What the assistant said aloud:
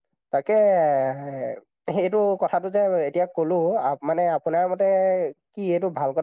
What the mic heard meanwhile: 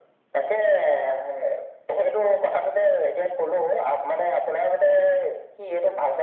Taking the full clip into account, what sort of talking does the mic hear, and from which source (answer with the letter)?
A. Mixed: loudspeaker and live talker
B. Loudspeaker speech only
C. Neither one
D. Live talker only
B